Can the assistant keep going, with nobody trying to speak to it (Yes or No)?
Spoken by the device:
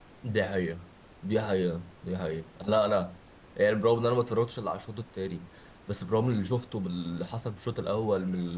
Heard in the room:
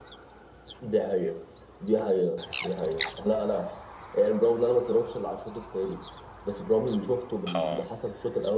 No